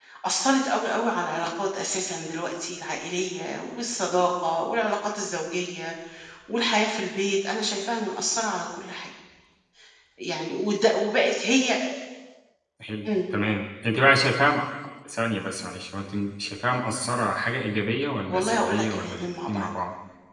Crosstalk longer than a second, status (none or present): present